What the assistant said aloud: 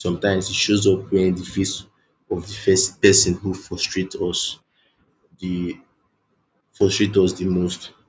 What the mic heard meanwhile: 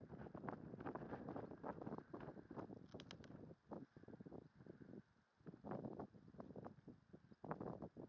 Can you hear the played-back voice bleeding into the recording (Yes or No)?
No